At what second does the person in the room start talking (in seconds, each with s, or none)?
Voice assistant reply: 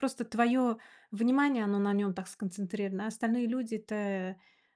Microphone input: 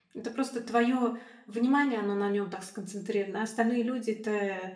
none